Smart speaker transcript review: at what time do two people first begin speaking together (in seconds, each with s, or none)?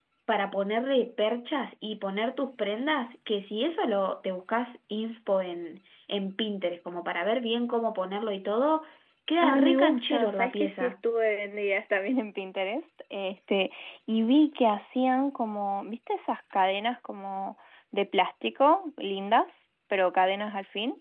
9.4 s